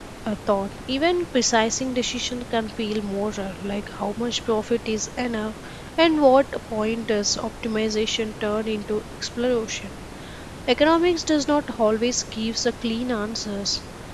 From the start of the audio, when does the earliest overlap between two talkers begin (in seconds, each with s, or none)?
none